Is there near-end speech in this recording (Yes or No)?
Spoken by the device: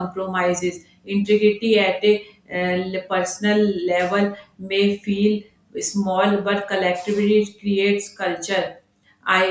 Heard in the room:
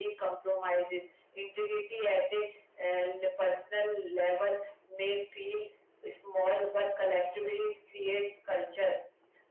No